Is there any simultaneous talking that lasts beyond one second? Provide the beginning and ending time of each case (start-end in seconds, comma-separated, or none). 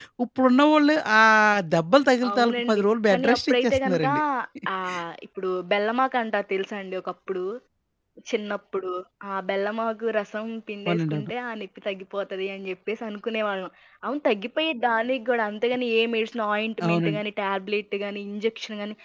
2.3-4.1